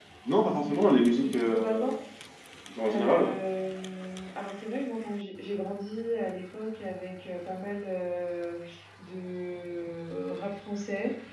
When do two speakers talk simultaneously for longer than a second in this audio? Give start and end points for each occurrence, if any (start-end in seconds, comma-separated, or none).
0.5-2.0